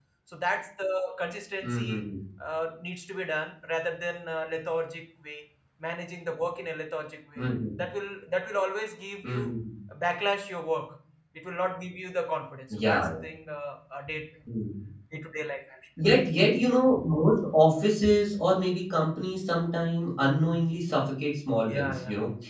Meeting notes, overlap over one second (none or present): none